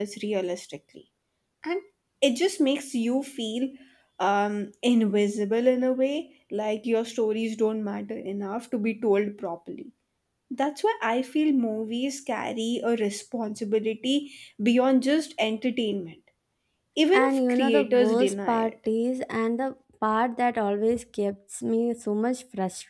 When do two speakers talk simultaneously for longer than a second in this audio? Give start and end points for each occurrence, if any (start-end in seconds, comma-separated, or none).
17.1-18.7